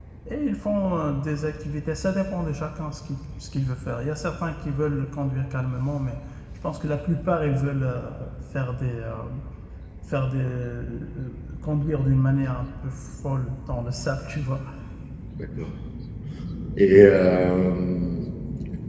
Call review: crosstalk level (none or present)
none